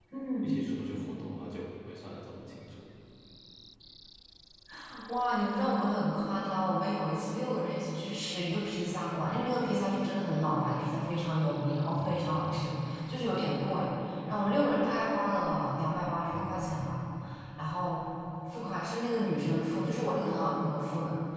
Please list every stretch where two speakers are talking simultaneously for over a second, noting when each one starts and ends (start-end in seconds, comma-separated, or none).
none